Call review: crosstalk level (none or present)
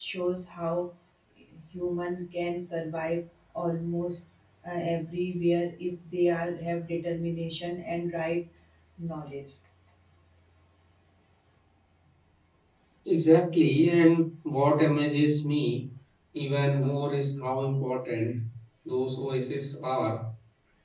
none